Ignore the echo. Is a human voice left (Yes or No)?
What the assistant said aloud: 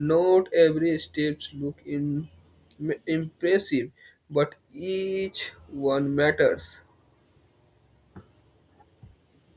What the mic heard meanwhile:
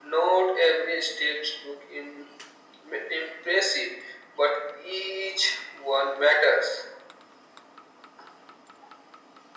No